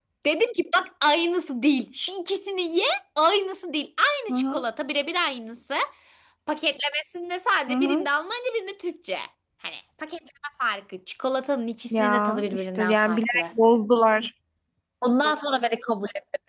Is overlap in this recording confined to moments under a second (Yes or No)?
No